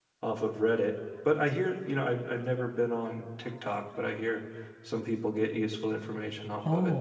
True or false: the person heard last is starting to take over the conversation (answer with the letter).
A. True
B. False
A